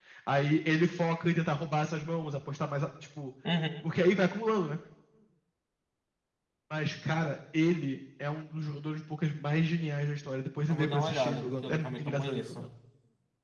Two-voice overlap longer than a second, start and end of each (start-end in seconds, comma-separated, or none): 10.7-12.6